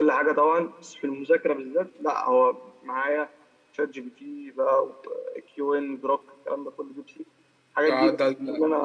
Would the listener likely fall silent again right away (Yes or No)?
No